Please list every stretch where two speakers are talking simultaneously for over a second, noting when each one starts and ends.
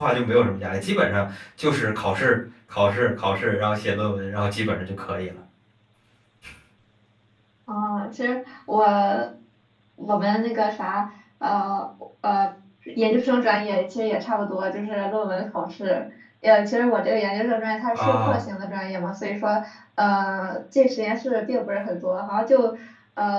none

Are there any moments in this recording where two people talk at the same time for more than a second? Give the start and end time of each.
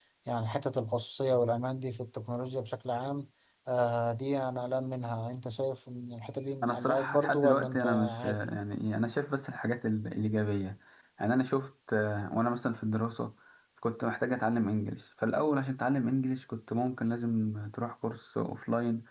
6.6-8.5

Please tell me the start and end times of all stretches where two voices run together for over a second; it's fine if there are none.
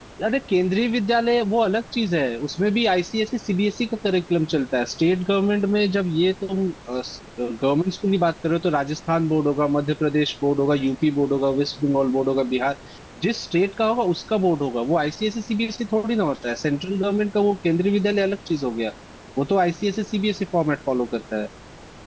none

